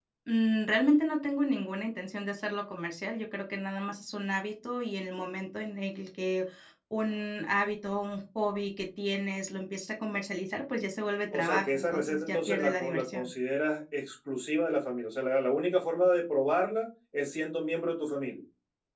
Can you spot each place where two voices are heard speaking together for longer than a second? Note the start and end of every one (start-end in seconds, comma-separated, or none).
11.3-13.3